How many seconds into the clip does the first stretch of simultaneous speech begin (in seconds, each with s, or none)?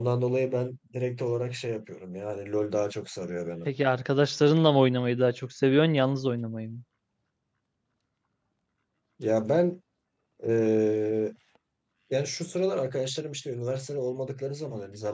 none